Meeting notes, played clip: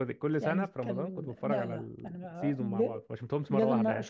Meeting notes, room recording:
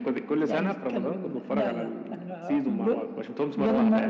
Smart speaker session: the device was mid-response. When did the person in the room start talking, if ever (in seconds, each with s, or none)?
none